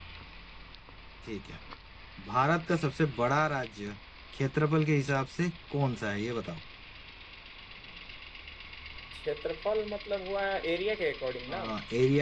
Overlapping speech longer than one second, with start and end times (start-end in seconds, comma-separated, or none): none